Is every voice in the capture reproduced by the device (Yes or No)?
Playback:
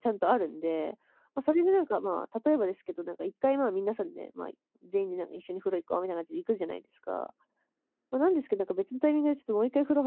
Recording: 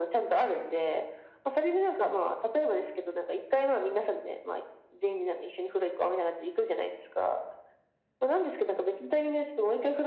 Yes